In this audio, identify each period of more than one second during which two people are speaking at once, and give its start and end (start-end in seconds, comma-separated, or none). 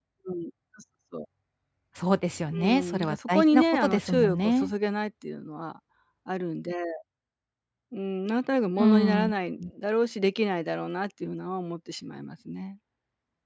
2.6-4.7